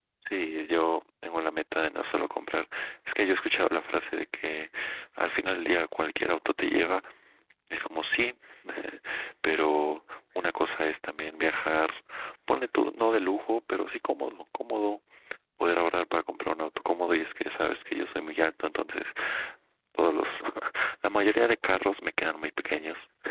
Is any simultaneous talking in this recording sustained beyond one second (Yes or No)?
No